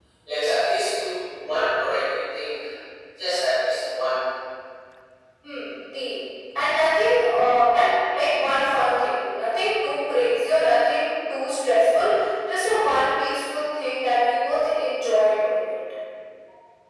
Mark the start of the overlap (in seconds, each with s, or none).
none